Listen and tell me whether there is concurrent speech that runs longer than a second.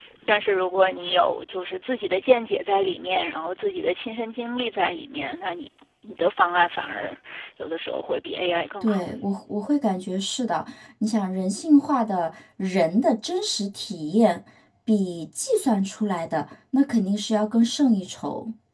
No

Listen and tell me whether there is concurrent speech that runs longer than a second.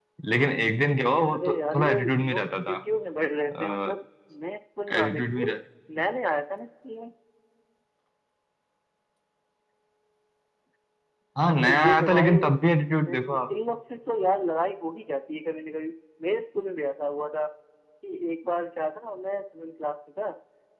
Yes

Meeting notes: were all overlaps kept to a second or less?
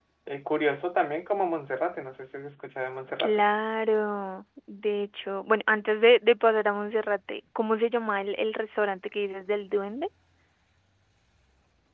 Yes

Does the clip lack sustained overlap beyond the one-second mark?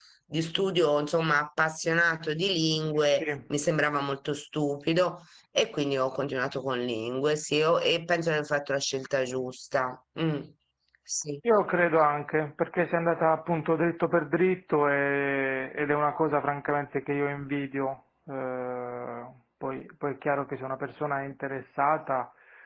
Yes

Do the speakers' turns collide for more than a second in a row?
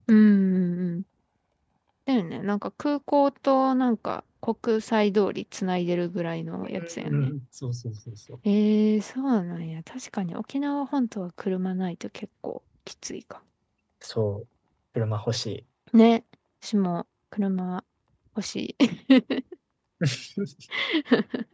No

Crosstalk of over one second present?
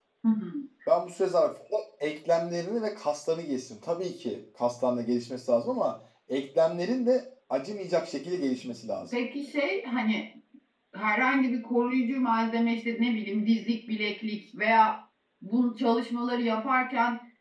No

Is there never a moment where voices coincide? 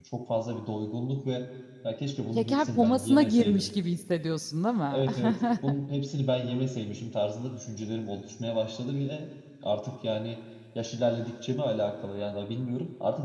No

